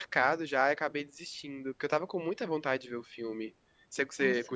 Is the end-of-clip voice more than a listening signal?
Yes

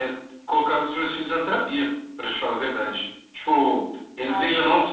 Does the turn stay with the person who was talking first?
Yes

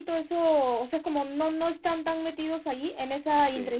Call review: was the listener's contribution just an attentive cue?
Yes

